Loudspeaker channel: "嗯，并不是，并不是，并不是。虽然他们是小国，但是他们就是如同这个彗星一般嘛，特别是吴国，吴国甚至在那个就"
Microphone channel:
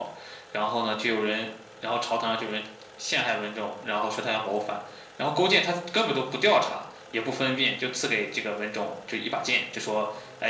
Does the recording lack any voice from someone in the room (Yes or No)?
No